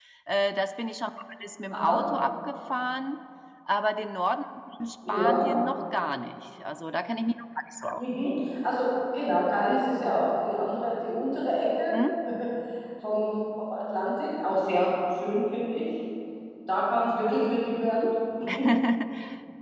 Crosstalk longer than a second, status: none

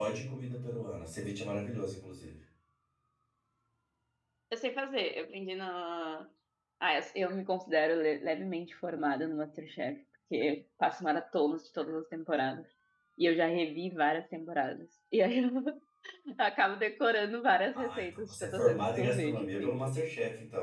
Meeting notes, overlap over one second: present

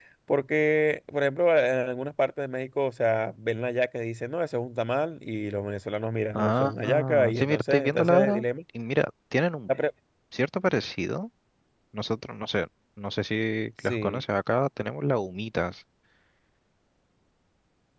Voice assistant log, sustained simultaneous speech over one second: present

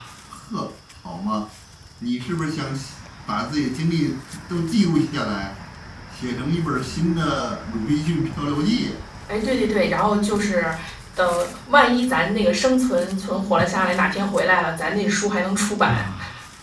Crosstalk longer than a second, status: none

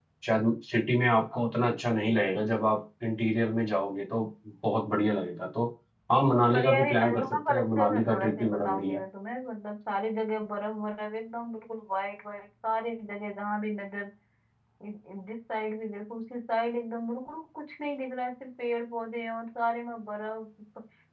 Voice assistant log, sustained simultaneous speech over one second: present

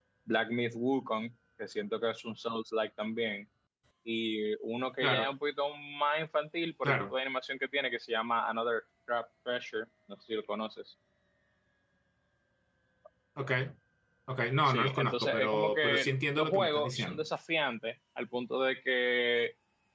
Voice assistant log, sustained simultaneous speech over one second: present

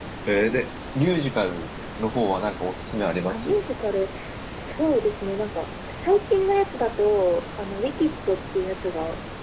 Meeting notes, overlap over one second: none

